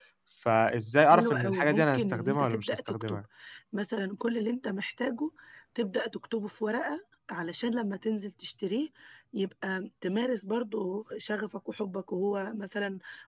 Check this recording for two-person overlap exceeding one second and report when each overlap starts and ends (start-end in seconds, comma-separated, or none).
1.1-3.2